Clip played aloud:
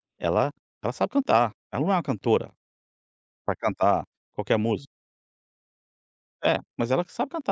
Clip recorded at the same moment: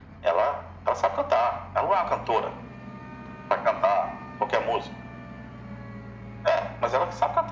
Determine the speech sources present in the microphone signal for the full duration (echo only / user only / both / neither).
echo only